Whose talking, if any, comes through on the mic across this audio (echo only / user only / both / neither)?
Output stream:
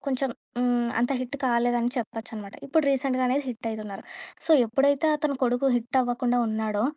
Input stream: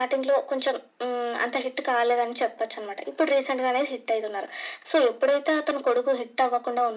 echo only